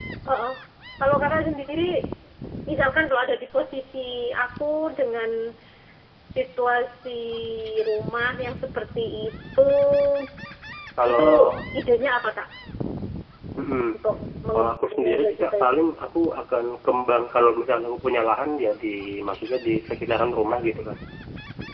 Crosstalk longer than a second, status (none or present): present